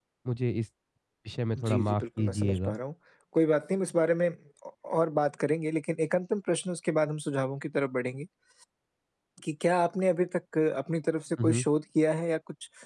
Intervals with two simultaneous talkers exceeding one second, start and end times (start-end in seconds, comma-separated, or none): 1.6-2.8